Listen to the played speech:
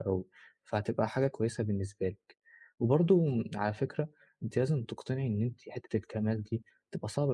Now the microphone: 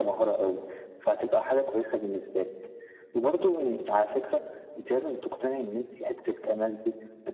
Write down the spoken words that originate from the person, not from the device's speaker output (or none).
none